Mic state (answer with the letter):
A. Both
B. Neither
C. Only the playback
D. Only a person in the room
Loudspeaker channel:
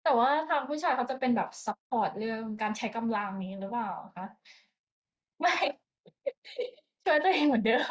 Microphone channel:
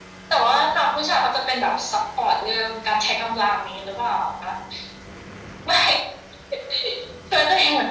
C